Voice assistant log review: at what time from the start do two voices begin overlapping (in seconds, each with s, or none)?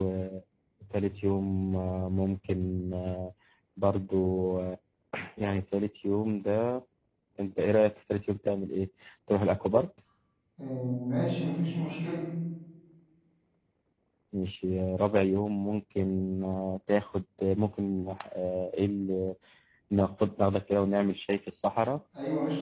none